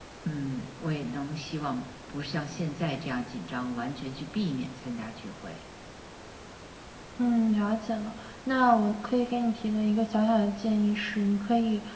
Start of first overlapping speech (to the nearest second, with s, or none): none